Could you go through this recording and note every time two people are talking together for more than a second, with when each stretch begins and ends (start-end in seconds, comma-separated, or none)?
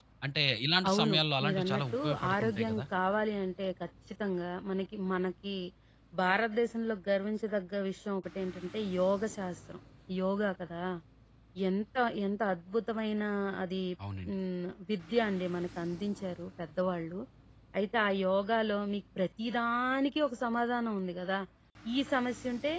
0.9-2.8